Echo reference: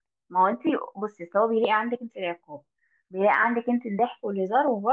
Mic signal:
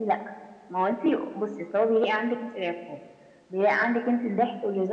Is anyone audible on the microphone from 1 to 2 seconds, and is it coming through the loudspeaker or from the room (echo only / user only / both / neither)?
echo only